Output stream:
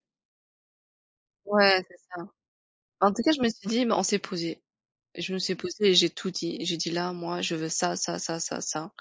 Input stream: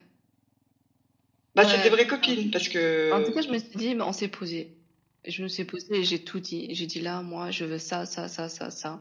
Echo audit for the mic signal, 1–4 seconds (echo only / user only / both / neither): both